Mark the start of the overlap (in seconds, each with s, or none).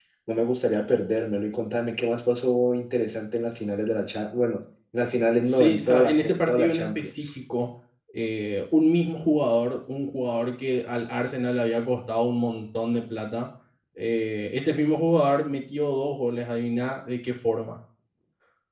5.4 s